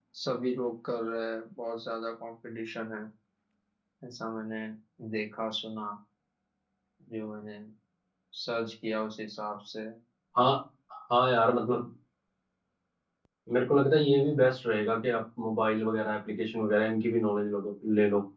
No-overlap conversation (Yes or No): Yes